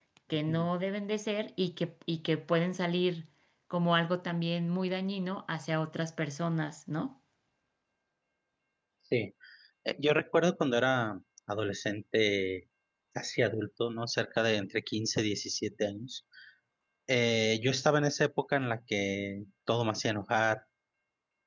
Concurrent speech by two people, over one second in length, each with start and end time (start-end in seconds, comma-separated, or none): none